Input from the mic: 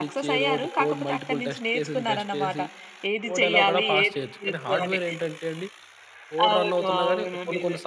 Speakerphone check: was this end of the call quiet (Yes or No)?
No